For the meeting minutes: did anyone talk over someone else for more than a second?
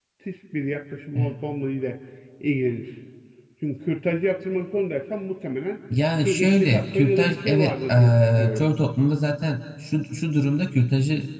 Yes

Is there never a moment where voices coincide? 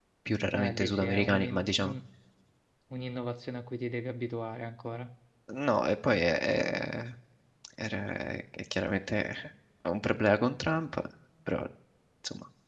No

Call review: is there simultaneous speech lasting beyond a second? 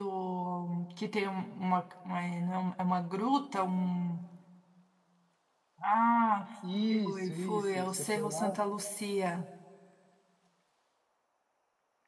Yes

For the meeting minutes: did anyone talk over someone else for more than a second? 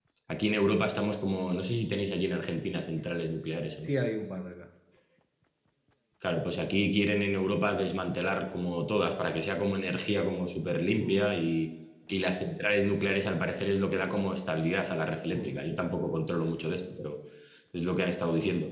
No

